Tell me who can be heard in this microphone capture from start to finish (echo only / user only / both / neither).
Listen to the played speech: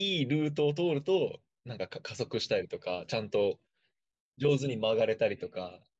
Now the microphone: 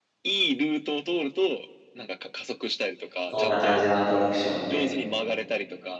both